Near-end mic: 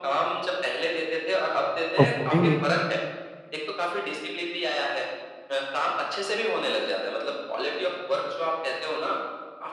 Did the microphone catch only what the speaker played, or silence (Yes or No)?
No